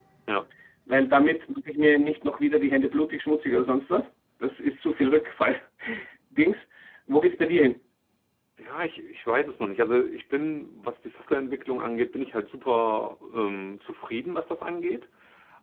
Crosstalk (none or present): none